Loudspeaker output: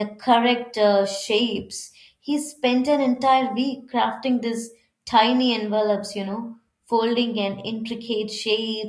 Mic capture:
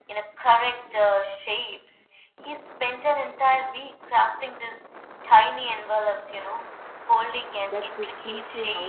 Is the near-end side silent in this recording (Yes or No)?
No